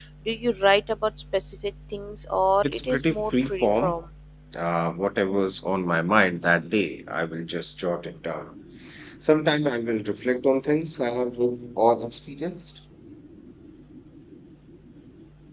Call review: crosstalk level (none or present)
present